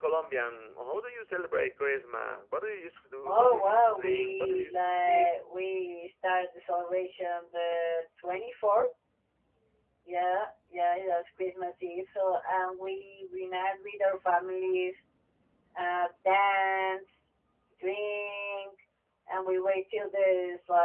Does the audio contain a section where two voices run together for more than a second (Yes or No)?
Yes